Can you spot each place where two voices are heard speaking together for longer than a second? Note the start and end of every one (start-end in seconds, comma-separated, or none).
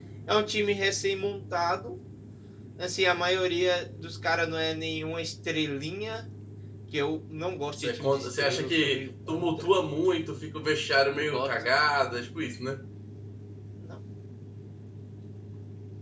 7.8-9.8